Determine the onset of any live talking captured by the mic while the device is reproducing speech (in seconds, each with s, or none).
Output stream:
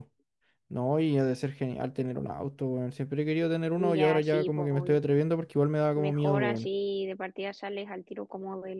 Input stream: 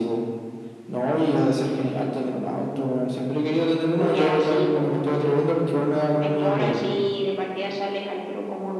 none